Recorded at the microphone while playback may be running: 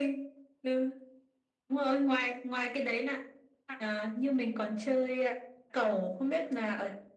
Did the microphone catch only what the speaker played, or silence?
Yes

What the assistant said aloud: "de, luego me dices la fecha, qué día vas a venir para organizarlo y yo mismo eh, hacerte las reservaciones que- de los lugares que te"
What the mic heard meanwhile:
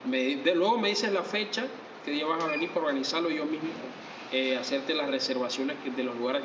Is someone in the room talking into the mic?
No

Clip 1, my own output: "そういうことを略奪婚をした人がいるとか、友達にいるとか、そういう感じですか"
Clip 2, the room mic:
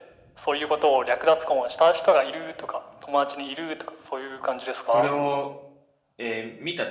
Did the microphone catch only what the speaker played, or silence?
No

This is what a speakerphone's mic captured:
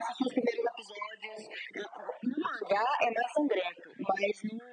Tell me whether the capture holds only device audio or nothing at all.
Yes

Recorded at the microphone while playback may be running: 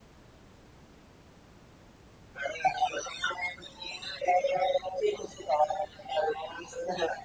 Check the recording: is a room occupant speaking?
No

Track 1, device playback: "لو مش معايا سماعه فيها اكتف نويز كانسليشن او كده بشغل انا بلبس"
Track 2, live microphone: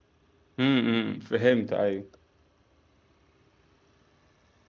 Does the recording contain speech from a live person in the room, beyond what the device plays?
Yes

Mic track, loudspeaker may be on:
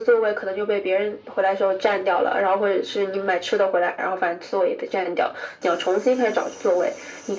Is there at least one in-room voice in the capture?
No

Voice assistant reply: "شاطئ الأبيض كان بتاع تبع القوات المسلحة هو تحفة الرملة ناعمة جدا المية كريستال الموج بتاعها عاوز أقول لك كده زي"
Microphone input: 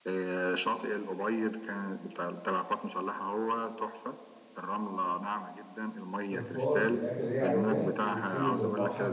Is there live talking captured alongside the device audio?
Yes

